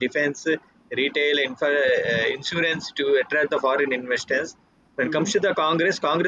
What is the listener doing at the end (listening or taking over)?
listening